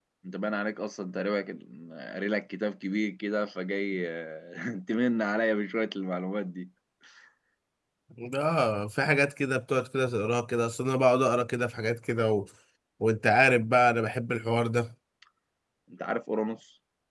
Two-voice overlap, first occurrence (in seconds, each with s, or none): none